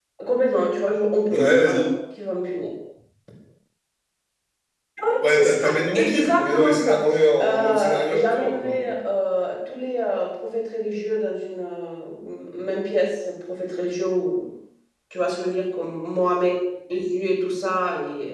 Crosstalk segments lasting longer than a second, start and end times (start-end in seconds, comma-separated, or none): 5.2-7.0, 7.4-9.0